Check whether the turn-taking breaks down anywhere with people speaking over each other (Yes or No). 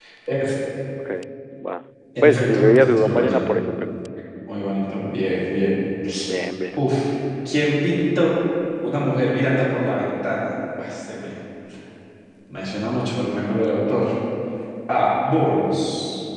Yes